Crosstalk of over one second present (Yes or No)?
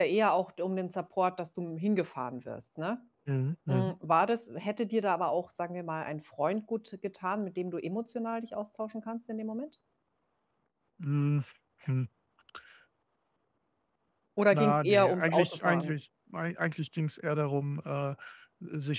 Yes